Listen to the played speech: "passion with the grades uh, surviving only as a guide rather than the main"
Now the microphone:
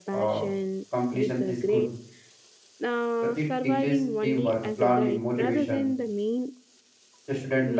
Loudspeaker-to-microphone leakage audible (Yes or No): Yes